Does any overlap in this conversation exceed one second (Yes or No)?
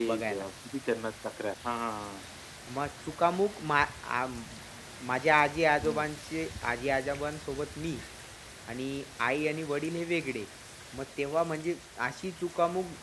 No